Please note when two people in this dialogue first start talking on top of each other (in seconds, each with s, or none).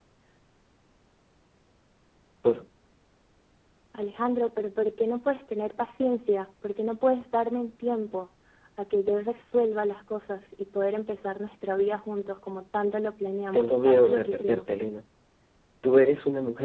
13.5 s